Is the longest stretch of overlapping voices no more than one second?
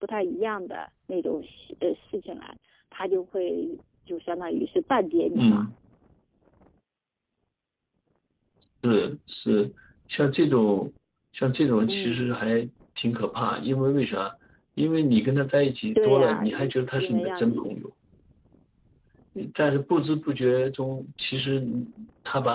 No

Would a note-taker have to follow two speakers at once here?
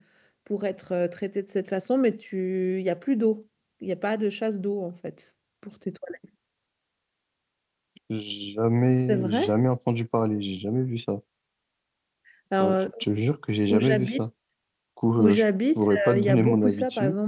Yes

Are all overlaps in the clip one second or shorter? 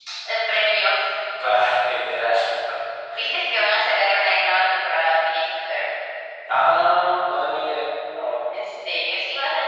Yes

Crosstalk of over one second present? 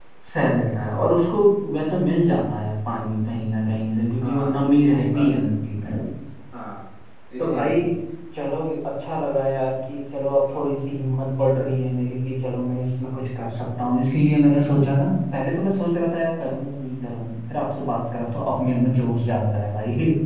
Yes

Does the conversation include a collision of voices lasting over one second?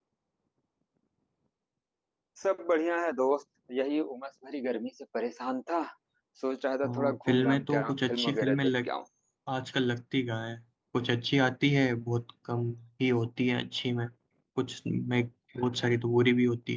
Yes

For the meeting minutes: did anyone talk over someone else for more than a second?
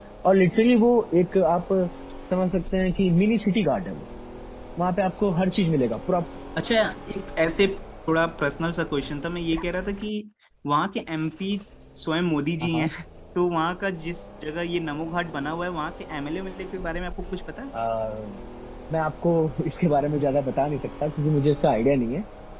No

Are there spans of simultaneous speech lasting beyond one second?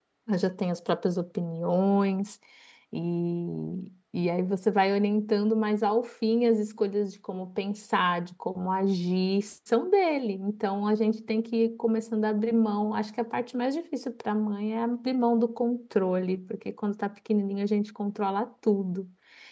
No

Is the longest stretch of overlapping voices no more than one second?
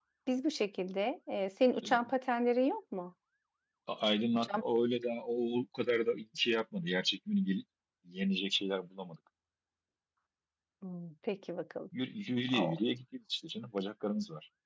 Yes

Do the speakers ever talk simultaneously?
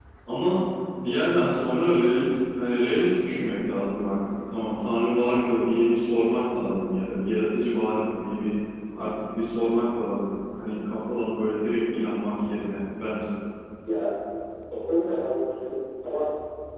No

